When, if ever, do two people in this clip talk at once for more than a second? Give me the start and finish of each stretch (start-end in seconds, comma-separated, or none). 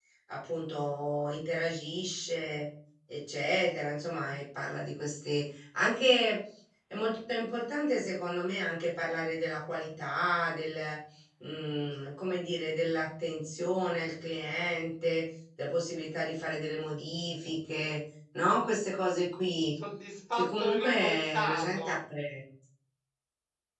20.3-22.0